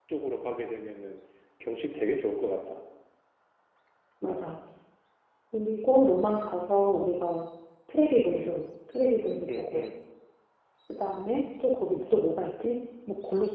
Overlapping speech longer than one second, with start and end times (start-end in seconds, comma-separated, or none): none